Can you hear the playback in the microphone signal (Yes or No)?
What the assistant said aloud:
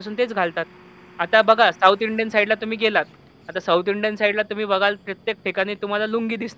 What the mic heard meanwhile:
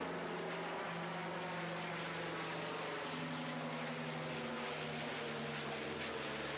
No